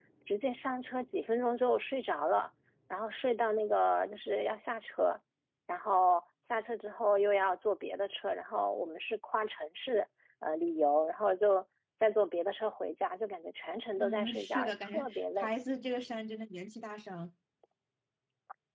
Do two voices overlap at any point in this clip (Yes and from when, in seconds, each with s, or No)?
Yes, from 14.0 s